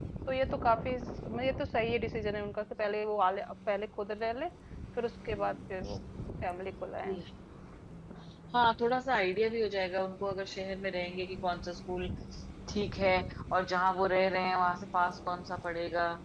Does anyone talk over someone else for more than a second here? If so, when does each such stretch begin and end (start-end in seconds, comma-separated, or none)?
none